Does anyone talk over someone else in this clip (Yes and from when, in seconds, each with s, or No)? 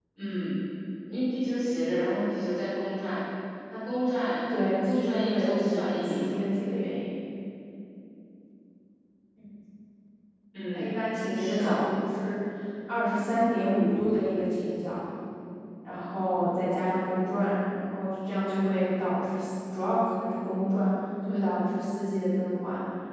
Yes, from 4.8 s